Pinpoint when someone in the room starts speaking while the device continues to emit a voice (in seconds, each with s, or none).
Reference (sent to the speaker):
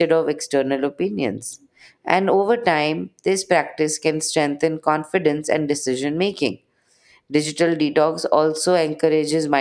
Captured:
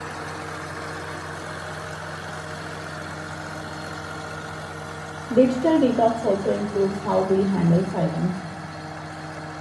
5.3 s